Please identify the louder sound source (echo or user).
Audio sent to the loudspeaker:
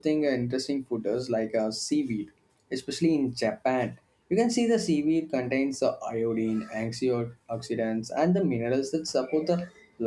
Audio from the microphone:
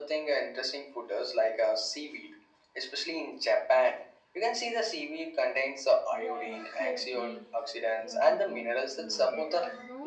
echo